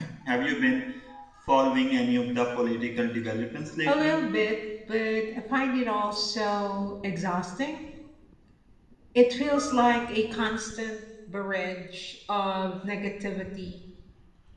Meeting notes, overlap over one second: none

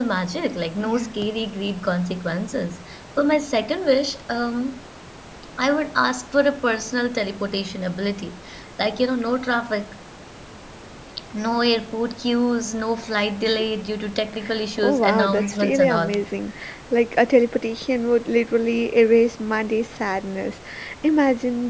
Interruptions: present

